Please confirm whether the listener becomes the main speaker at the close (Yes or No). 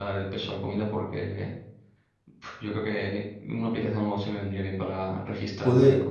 Yes